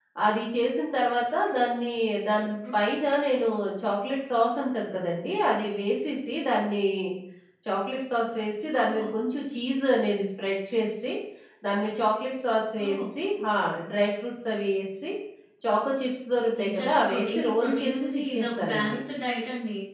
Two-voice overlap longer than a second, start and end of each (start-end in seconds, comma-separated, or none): 16.6-19.0